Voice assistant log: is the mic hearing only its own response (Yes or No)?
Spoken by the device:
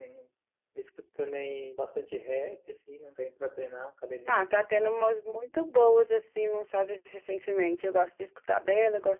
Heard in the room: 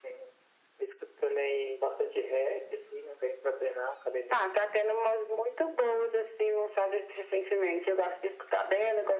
Yes